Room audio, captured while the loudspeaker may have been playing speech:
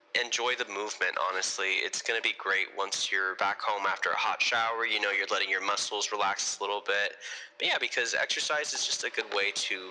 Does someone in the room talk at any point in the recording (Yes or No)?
No